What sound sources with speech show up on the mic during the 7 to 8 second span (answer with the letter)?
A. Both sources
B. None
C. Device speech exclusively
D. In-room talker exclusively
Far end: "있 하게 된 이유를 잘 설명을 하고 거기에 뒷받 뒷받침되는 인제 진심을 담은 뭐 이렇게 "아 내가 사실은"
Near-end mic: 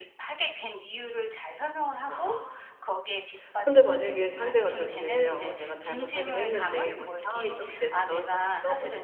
A